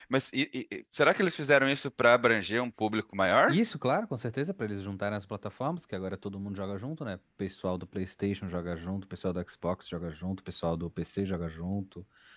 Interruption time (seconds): none

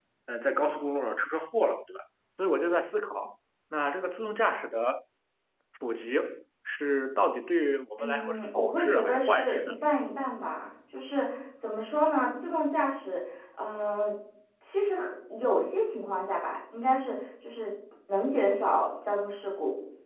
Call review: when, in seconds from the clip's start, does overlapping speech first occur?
8.0 s

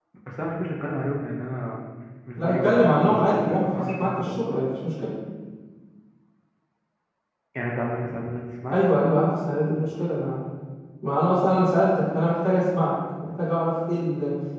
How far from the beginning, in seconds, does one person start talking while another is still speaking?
2.4 s

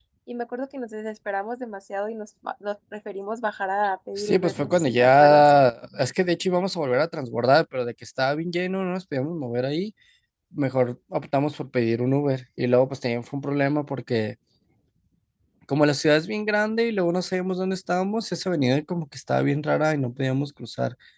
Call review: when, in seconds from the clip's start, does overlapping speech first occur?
4.2 s

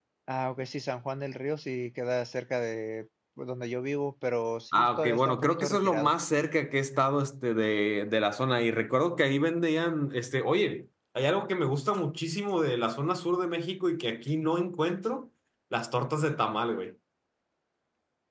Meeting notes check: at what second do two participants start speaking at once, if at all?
4.7 s

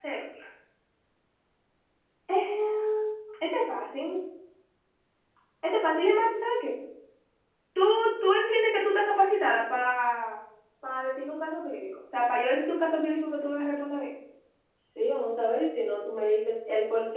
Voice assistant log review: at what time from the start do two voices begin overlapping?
none

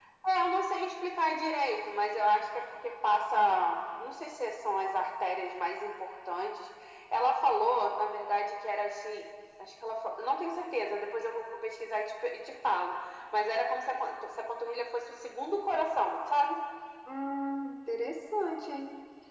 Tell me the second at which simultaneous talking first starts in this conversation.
none

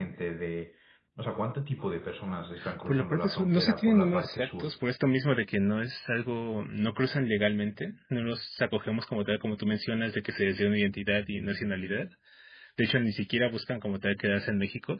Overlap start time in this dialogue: 2.9 s

